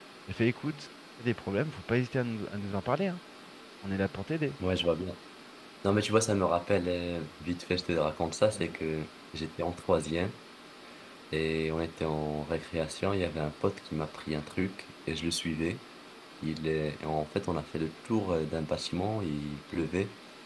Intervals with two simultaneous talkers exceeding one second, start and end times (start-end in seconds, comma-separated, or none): none